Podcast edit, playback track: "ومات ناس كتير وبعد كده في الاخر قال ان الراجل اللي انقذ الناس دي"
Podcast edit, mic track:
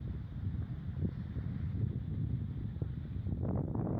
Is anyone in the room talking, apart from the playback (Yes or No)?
No